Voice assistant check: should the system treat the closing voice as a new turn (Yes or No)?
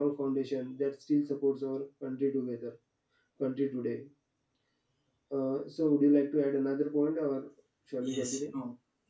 Yes